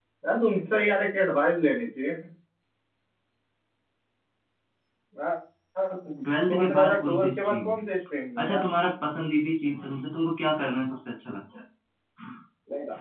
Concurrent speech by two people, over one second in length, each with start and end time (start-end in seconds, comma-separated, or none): 6.2-7.8